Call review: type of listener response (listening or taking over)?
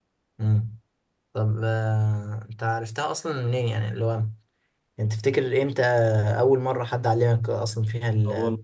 taking over